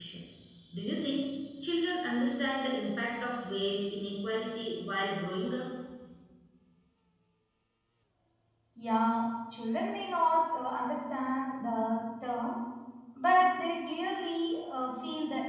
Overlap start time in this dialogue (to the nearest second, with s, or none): none